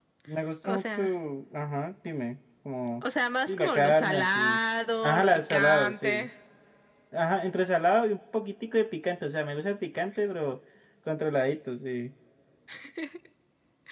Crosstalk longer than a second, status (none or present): present